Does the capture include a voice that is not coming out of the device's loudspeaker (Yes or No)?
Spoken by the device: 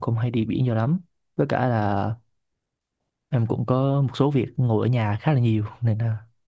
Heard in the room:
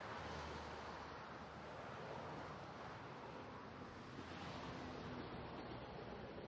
No